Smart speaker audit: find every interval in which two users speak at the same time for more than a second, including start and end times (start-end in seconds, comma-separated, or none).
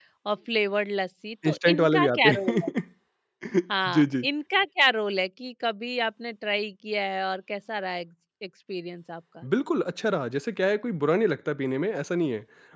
1.5-2.7